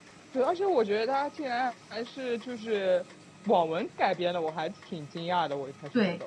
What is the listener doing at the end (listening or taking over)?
taking over